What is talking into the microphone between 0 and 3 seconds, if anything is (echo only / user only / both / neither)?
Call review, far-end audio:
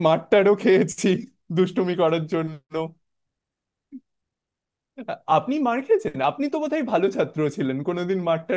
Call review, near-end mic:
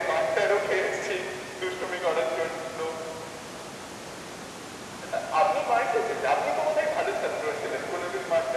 echo only